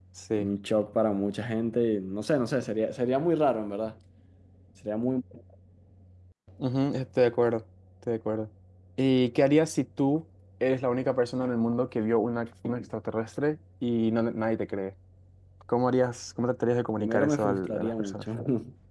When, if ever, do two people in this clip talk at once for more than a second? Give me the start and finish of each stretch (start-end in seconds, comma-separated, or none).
17.0-18.2